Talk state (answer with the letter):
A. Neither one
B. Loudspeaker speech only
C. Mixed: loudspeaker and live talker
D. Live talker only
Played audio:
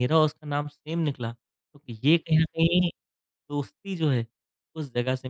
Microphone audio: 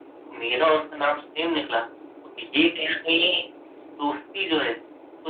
B